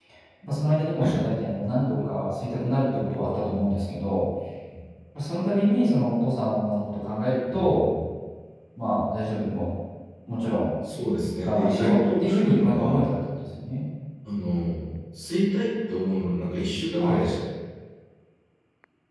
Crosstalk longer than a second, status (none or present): present